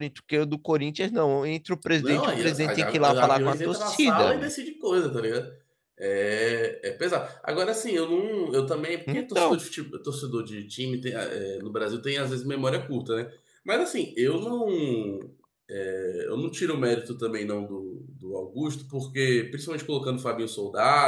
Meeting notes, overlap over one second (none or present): present